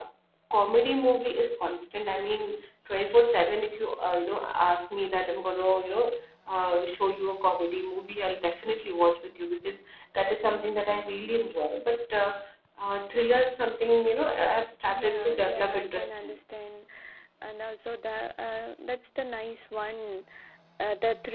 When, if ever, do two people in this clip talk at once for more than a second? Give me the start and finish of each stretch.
14.9-16.4

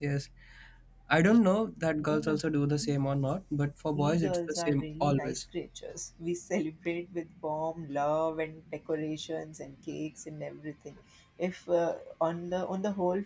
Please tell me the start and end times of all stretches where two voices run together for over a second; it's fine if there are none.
3.9-5.4

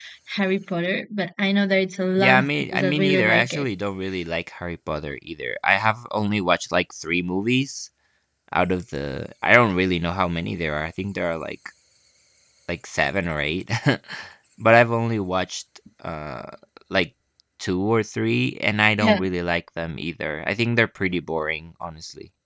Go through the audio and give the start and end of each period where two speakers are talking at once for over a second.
2.2-3.6

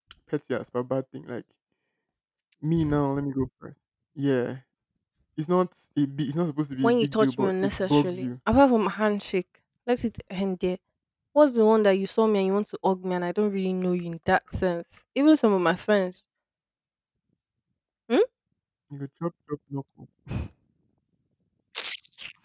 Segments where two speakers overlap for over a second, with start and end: 6.8-8.2

